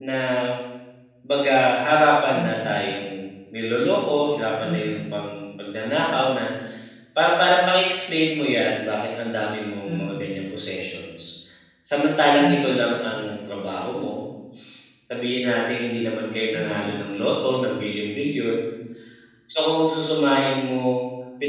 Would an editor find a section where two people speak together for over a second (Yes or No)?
No